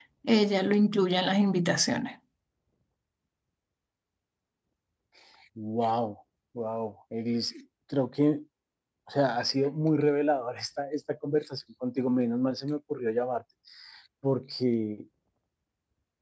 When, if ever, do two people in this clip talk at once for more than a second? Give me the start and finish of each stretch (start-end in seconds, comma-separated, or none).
none